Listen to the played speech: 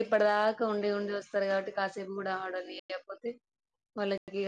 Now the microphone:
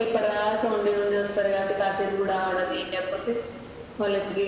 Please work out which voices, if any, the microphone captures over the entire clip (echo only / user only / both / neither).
echo only